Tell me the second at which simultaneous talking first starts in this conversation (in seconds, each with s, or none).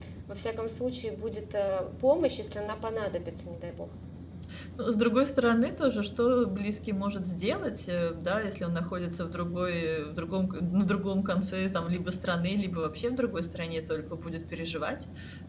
none